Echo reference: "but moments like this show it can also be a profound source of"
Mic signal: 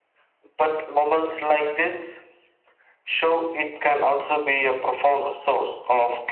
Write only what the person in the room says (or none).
none